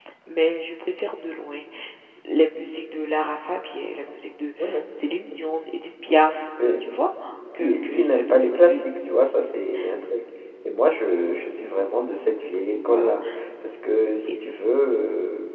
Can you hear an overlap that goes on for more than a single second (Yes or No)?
Yes